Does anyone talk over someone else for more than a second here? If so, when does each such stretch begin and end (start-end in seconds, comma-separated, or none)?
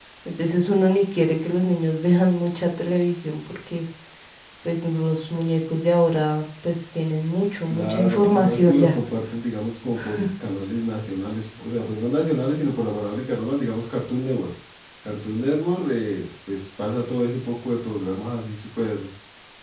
7.7-8.9